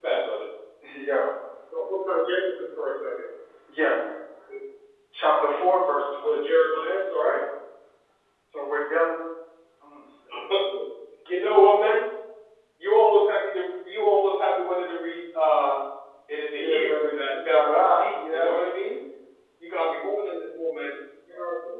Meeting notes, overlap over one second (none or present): present